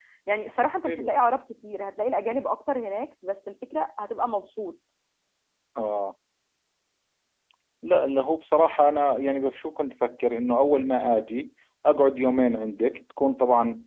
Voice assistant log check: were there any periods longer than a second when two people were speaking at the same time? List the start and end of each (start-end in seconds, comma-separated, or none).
none